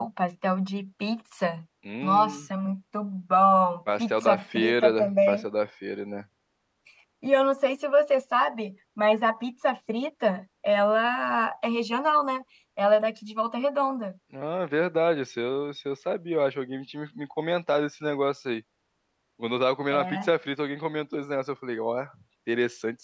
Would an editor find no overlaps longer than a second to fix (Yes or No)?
No